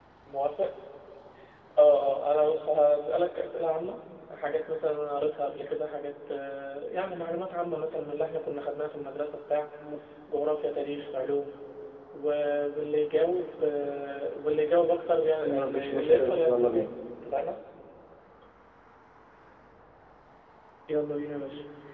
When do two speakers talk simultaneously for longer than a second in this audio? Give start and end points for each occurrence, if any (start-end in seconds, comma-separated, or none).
15.4-16.9